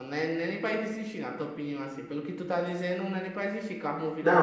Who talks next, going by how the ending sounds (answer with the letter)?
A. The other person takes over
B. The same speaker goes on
A